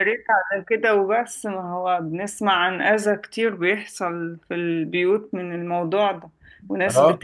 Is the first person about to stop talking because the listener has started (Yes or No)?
No